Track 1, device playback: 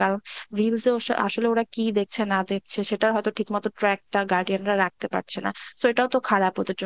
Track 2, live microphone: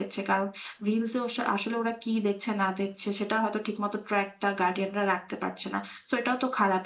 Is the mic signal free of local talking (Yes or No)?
Yes